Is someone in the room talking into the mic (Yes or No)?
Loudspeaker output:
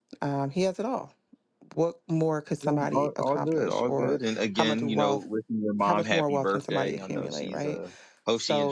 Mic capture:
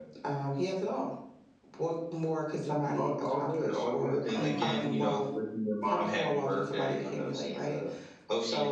Yes